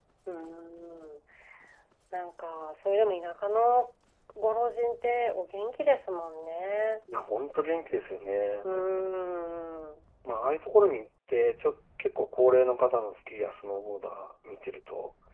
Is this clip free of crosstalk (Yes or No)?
Yes